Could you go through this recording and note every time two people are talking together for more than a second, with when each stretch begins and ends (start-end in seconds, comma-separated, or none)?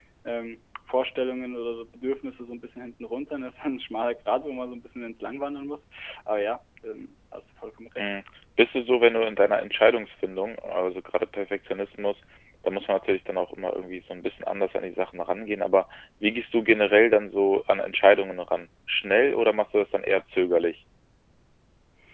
none